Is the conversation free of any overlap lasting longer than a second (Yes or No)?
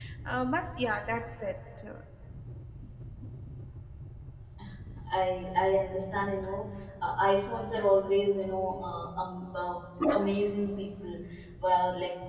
Yes